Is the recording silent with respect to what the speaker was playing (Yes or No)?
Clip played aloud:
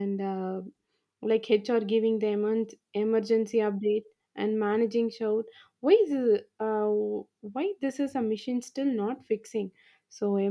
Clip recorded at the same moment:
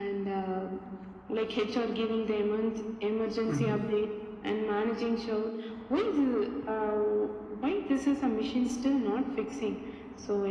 No